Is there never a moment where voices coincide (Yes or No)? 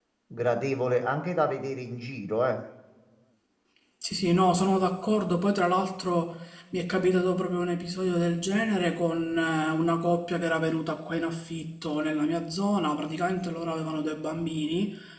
Yes